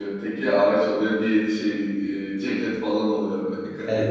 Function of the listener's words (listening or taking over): taking over